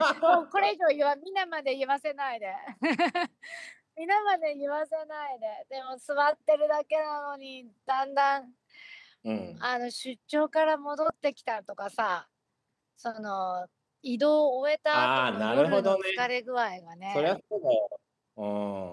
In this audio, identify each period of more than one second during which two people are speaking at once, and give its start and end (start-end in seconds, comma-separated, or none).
14.9-16.2